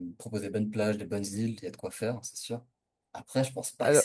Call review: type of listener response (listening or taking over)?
listening